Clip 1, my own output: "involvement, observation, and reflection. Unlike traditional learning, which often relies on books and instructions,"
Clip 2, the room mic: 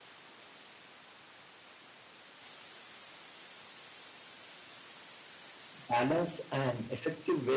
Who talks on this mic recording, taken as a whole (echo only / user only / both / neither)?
user only